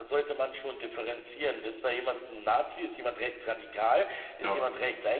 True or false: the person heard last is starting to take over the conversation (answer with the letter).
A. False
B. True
A